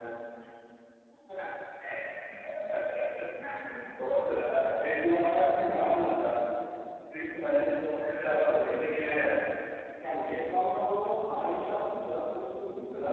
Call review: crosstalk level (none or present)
present